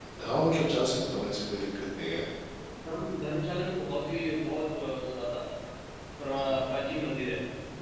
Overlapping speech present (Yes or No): No